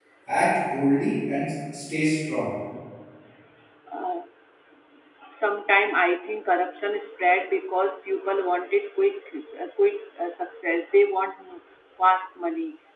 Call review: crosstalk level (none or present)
none